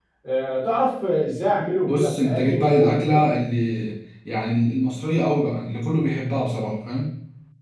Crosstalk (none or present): present